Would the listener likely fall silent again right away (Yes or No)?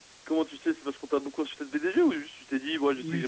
No